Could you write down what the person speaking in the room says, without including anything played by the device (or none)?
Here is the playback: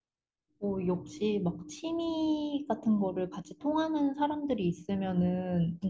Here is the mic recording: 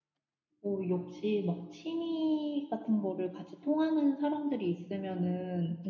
none